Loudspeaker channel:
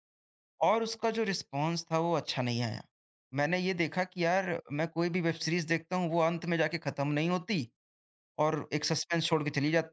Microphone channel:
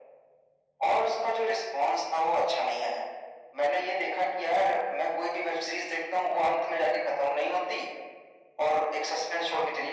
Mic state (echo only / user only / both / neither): echo only